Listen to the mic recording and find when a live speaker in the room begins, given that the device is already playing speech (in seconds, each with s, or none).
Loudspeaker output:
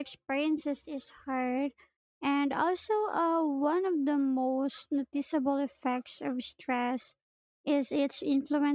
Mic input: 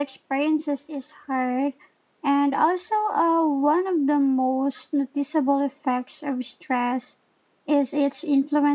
none